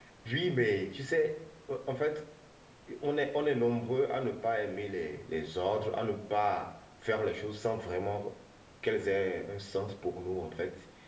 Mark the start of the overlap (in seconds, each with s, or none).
none